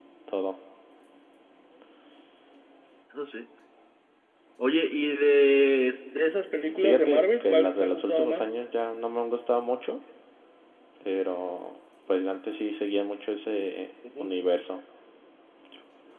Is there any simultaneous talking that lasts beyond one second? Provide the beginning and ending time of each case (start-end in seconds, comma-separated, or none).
6.7-8.5